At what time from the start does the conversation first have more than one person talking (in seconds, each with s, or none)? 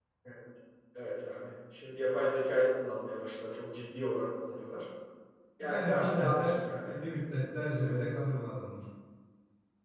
5.6 s